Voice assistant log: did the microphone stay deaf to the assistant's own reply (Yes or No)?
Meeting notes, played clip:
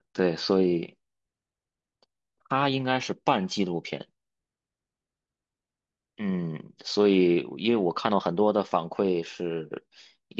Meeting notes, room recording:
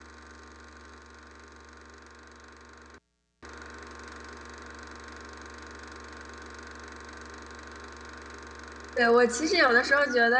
Yes